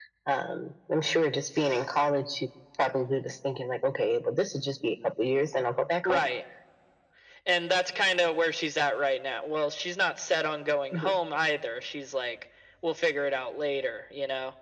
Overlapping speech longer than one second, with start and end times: none

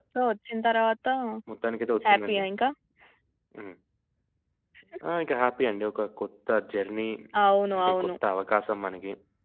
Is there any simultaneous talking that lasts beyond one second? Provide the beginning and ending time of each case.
none

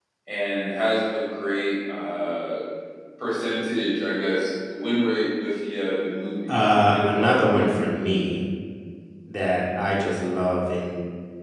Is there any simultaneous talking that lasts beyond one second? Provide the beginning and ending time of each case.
6.5-8.0

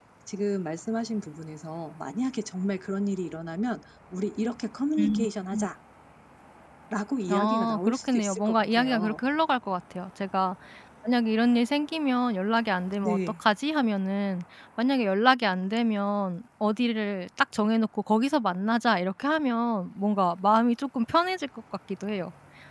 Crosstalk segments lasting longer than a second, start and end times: 7.3-9.2

